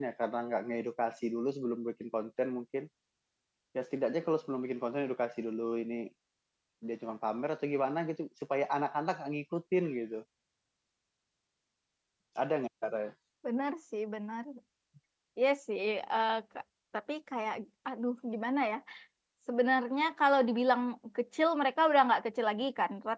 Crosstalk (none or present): none